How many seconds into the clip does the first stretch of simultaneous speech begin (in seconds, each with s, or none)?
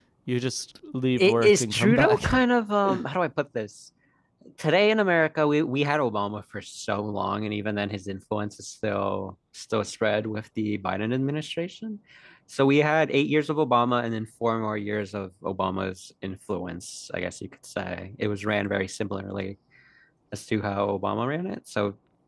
1.1 s